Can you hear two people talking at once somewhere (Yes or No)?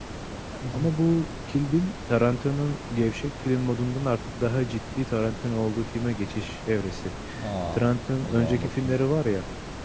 Yes